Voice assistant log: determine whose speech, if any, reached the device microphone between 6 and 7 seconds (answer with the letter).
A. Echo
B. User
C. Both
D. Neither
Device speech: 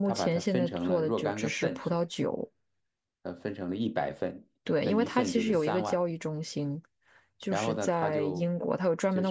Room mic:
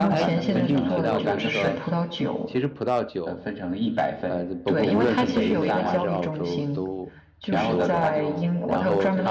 C